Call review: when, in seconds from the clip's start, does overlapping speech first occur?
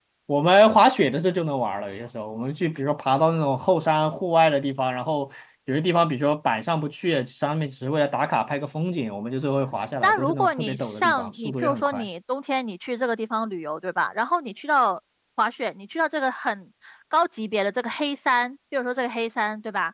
10 s

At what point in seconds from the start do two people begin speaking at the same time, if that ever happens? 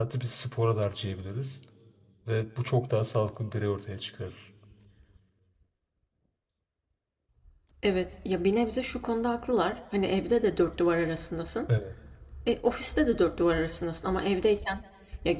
none

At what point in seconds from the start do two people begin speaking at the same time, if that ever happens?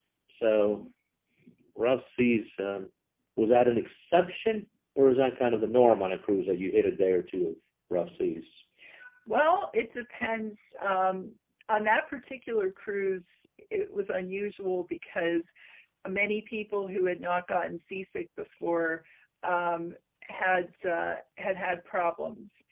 none

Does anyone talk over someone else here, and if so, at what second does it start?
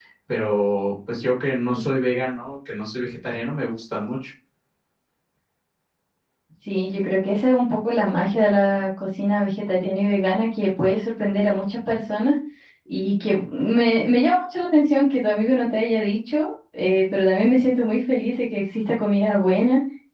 none

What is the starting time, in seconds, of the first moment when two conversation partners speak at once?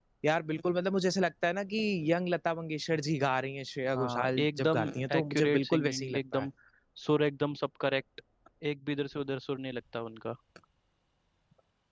4 s

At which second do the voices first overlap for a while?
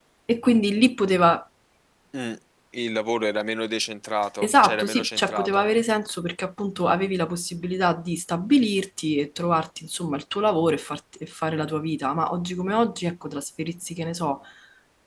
4 s

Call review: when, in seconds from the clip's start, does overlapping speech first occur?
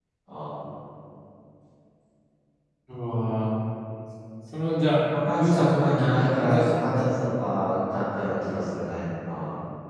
5 s

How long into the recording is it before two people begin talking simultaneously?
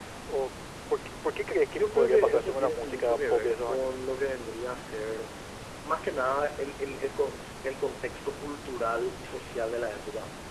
2 s

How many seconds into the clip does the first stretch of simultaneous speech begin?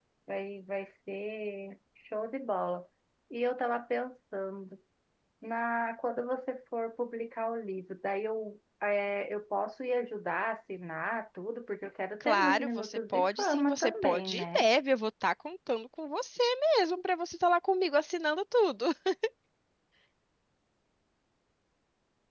12 s

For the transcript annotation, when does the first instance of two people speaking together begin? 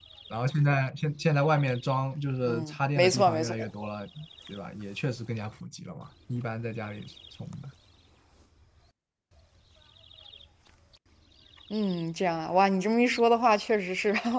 2 s

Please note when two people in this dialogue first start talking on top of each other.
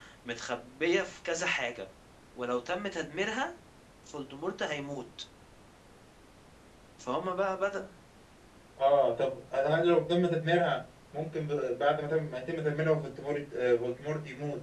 none

